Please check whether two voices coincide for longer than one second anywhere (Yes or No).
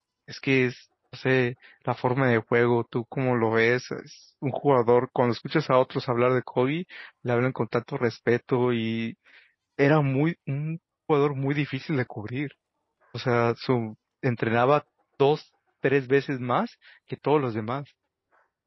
No